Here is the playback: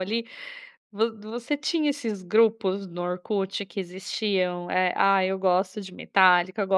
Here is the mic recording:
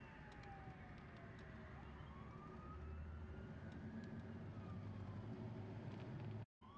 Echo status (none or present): none